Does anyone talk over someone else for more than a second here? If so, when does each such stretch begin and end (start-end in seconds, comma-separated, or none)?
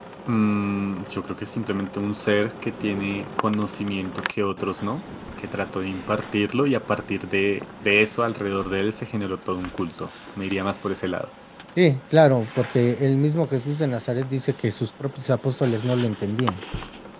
none